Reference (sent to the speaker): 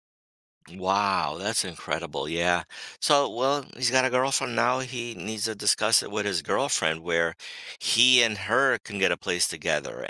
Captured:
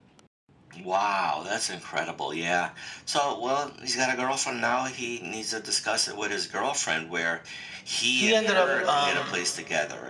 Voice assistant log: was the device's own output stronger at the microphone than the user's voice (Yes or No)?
No